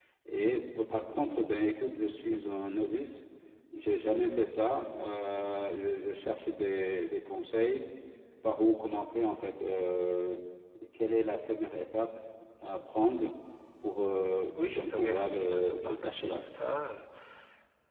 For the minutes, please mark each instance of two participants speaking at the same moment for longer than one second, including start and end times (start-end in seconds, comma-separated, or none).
14.6-16.4